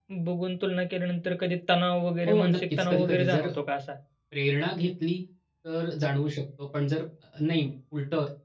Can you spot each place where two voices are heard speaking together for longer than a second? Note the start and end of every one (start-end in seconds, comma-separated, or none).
2.3-3.5